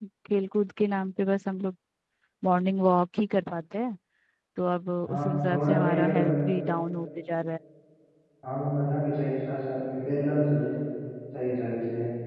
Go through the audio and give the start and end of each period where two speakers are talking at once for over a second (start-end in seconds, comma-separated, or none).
5.1-6.3